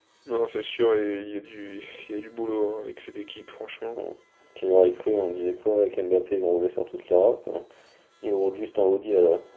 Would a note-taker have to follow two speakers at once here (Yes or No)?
No